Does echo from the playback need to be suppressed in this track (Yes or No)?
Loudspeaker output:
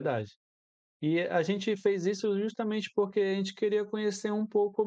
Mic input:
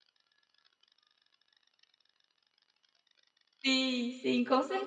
No